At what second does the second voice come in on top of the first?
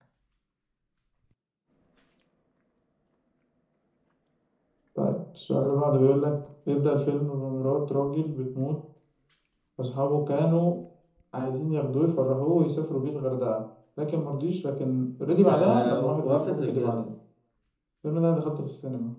15.5 s

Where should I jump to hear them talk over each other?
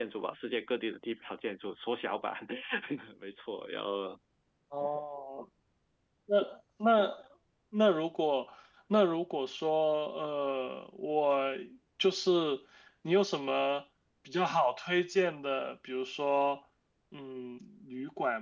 none

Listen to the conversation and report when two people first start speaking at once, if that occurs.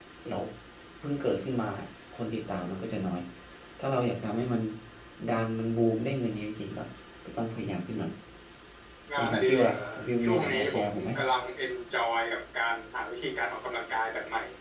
9.1 s

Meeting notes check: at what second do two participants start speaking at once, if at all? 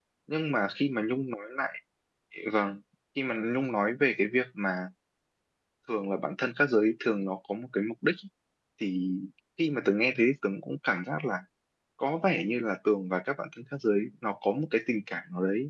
none

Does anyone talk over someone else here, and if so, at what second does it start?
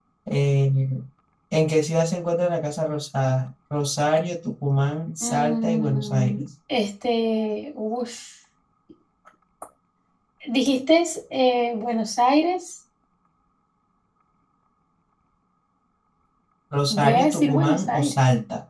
5.2 s

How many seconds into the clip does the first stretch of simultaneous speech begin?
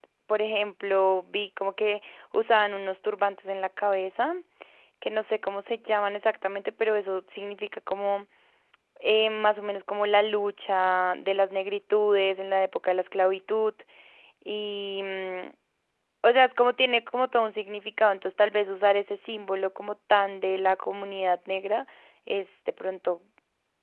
none

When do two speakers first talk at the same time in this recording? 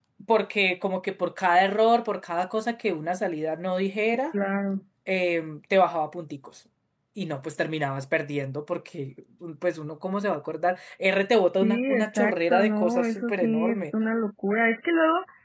11.6 s

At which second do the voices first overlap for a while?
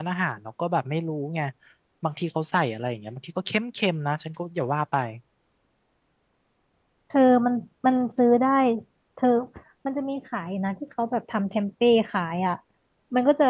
none

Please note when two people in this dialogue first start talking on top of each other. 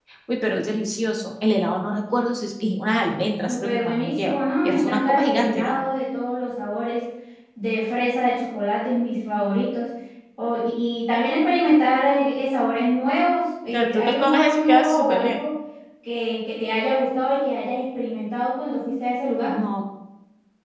3.5 s

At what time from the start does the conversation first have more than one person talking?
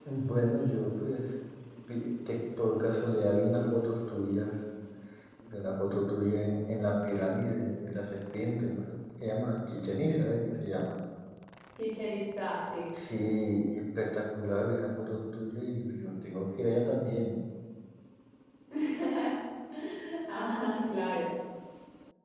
none

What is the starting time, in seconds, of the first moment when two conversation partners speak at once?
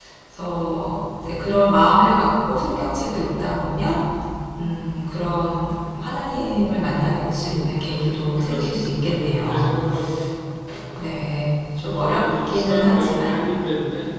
8.4 s

